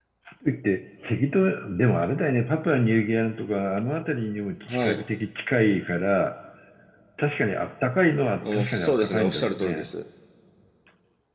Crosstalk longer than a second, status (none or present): present